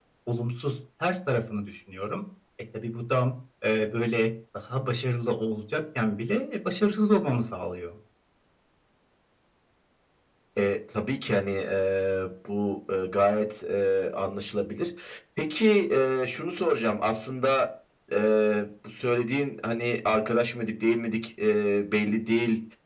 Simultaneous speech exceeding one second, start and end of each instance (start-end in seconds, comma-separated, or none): none